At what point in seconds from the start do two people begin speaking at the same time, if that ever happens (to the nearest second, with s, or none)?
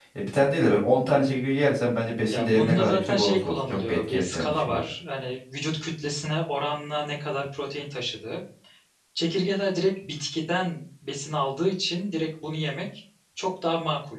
2 s